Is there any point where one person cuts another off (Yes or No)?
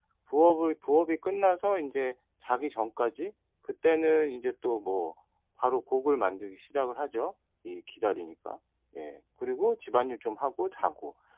No